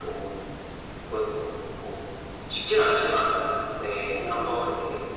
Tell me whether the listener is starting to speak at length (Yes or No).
No